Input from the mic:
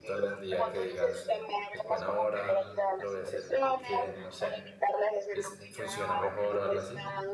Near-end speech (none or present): present